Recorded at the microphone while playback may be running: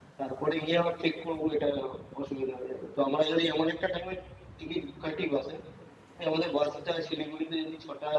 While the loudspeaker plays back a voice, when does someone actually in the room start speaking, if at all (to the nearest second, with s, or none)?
none